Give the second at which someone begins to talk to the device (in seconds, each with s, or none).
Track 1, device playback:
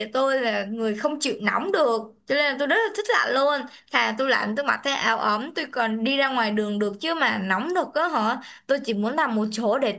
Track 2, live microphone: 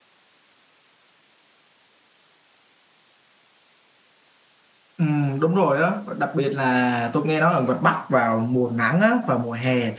5.0 s